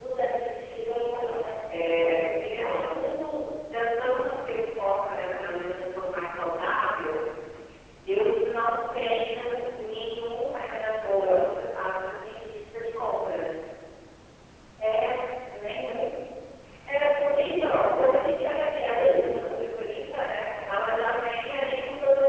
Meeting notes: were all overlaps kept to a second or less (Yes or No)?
No